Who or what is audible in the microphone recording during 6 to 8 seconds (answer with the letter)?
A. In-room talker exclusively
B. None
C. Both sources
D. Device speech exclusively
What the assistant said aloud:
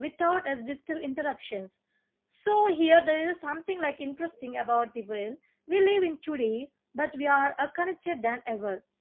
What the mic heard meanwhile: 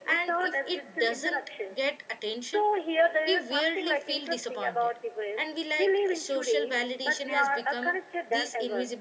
C